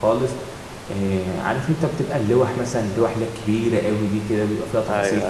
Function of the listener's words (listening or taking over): listening